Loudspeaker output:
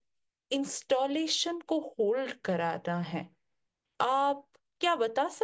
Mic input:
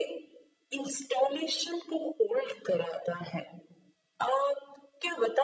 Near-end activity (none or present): none